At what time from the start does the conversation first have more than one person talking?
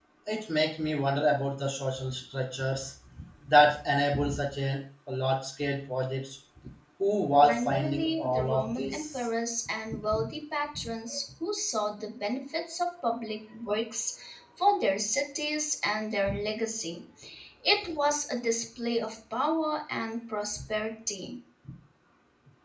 7.4 s

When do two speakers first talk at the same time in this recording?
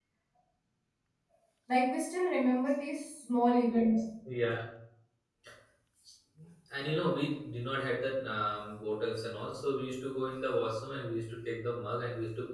none

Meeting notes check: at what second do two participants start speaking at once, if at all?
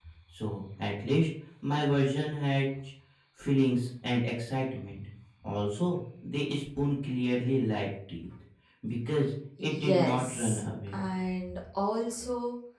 9.6 s

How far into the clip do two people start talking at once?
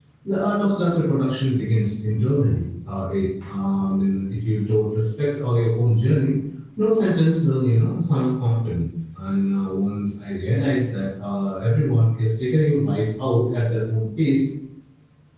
none

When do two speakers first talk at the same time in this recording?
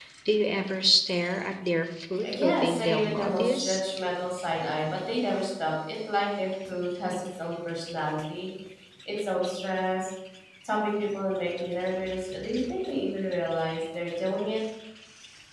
2.2 s

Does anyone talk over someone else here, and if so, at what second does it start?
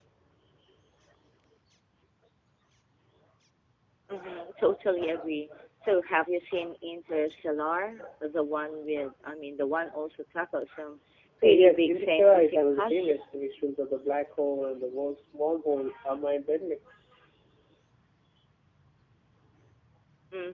11.4 s

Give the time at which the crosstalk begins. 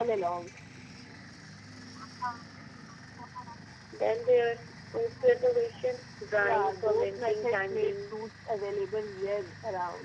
6.4 s

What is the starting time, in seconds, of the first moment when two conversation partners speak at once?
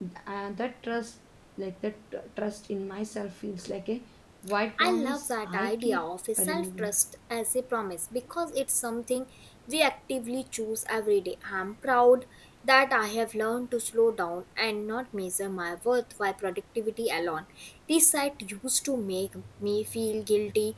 4.8 s

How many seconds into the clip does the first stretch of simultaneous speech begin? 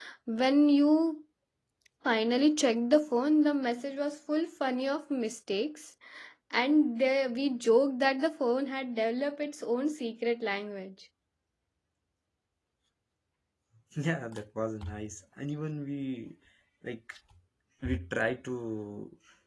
none

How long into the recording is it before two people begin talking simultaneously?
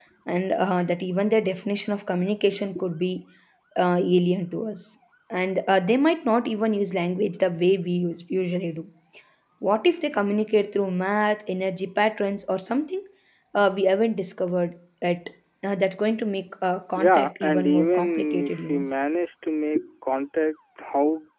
16.9 s

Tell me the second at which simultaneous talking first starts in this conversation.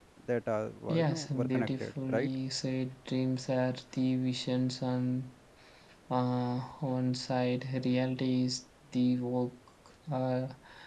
0.9 s

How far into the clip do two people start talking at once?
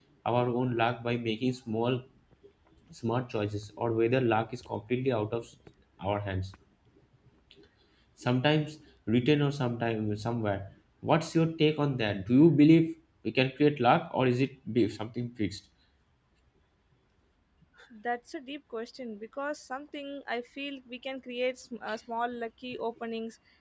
none

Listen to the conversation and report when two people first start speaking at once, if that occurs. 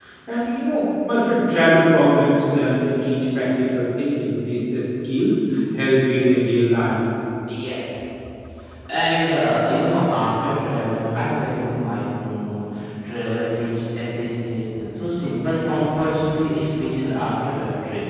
none

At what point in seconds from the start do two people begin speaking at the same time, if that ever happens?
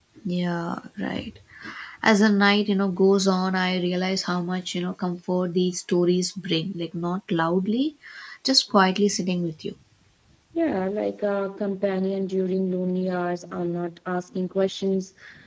none

